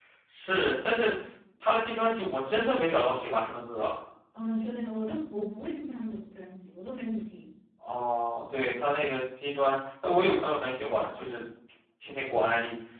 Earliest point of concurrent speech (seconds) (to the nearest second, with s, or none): none